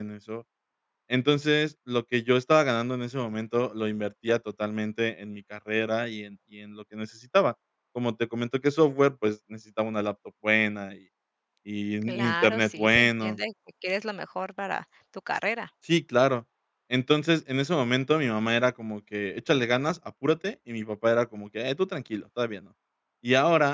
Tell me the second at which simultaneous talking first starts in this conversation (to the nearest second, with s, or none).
12 s